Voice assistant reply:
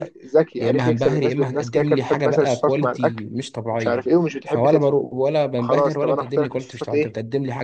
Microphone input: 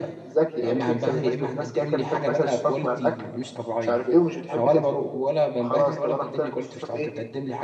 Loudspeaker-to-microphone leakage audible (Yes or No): Yes